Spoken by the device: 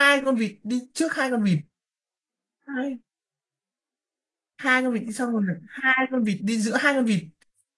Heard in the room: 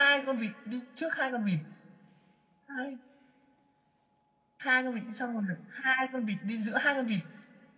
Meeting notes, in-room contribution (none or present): none